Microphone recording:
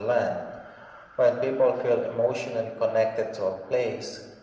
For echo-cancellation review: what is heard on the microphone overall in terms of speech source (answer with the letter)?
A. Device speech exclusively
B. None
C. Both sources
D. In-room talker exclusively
A